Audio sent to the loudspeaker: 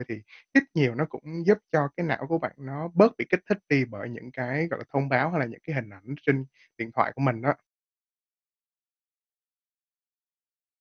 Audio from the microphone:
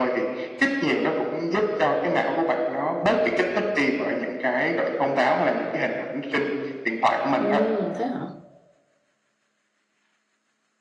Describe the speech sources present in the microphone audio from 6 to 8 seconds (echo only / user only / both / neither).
both